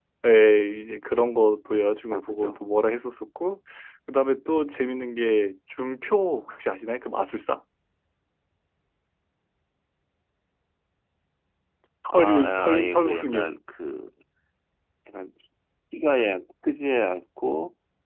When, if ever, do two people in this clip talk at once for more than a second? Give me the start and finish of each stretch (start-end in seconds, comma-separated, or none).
12.1-13.5